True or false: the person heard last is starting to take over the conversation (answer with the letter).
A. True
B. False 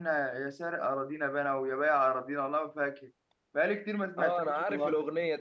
A